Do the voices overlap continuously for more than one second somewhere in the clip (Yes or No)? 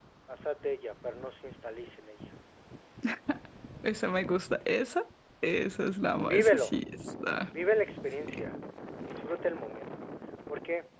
No